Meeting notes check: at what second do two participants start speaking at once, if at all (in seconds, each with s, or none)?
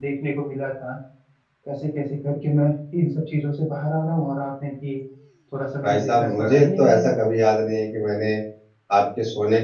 5.8 s